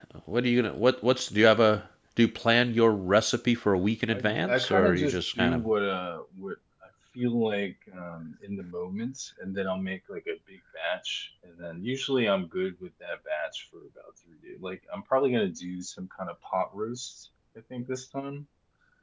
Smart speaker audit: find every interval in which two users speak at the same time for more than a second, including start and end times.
4.1-5.6

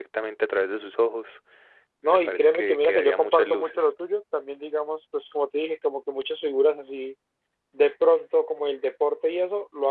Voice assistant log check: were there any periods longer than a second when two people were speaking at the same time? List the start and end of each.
2.0-3.8

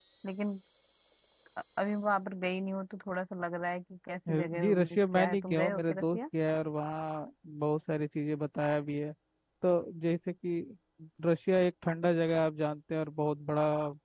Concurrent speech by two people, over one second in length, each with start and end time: 4.3-6.2

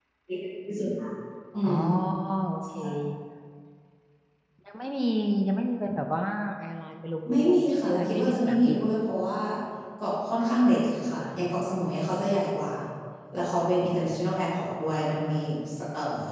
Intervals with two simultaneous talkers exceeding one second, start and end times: 7.3-8.8

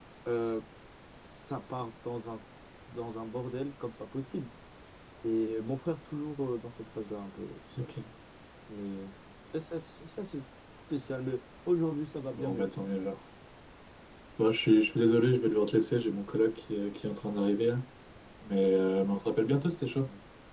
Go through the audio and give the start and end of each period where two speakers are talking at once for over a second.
none

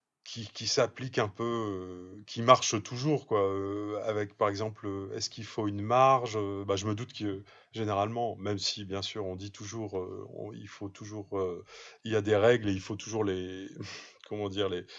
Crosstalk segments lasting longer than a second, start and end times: none

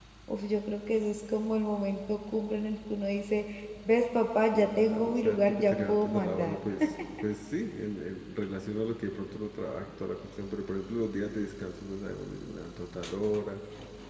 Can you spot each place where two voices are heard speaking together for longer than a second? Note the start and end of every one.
4.5-6.6

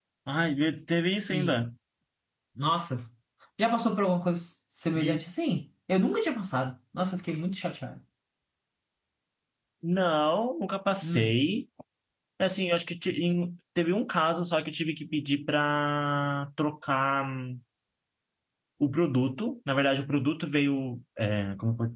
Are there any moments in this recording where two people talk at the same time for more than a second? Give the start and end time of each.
none

